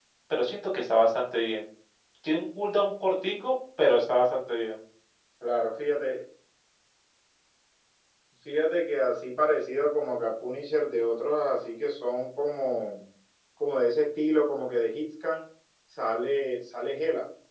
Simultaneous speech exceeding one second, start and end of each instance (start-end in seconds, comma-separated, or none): none